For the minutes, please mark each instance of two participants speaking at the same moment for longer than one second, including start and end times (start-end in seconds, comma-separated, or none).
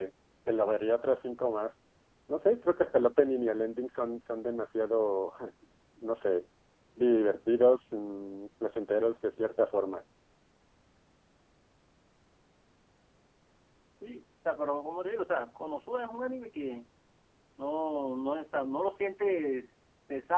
none